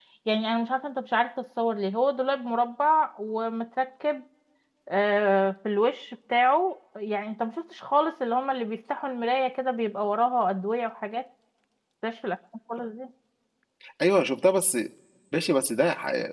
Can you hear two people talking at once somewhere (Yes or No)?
No